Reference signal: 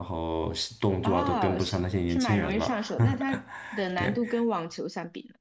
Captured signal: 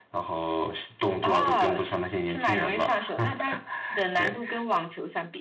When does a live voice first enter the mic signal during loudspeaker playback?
none

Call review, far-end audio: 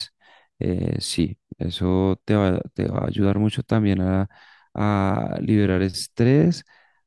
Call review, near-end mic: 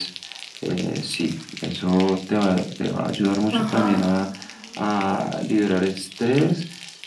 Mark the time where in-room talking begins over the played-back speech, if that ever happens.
3.5 s

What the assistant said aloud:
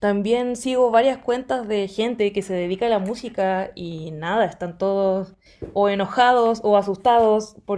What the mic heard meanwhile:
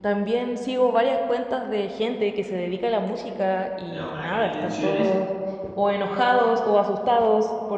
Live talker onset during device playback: 3.9 s

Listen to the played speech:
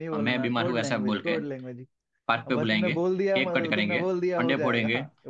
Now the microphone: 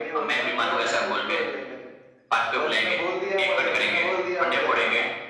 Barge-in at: none

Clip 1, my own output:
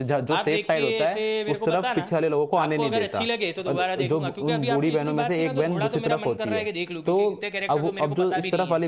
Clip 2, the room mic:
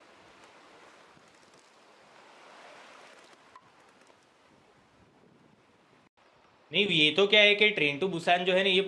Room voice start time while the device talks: 6.7 s

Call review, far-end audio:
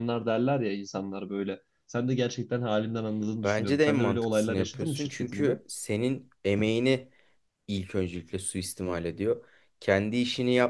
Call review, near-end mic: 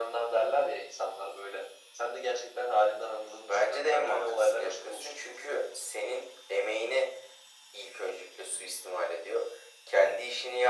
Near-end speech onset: none

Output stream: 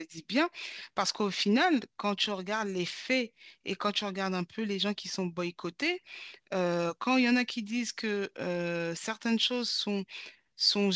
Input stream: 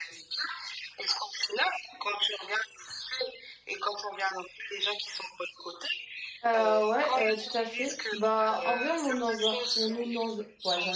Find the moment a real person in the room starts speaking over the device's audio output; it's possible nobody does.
6.5 s

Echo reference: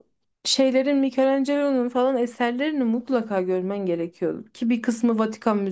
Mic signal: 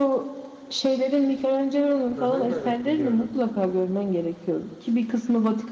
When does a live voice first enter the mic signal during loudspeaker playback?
2.1 s

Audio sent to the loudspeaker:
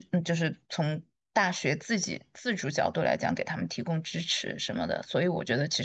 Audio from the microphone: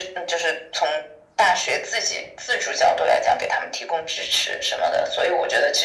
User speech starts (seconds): none

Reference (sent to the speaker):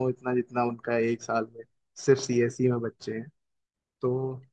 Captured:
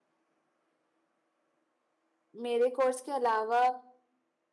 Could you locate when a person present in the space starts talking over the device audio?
2.4 s

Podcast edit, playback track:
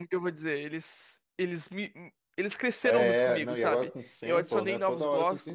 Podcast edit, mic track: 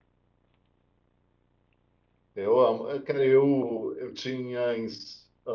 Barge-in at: 2.3 s

